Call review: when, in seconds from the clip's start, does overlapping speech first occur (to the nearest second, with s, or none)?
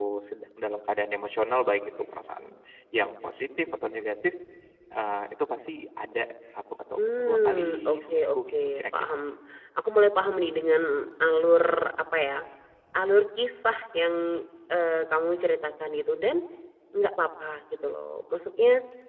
7 s